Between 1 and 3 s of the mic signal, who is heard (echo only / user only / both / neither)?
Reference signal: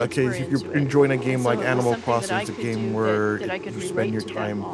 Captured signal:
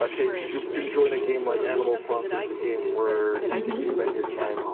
echo only